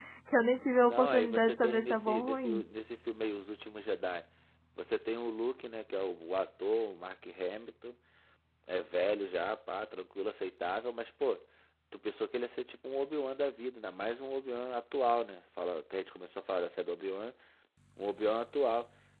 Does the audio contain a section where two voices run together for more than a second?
Yes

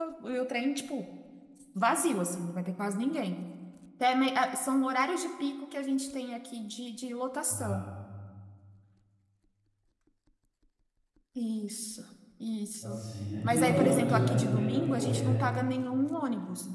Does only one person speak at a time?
No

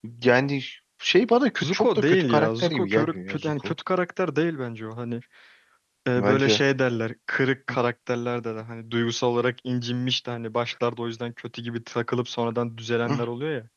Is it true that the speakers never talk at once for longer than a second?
No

